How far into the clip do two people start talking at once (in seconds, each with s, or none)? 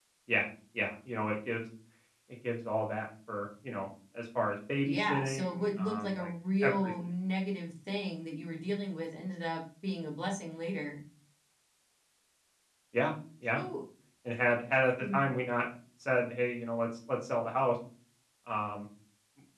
4.8 s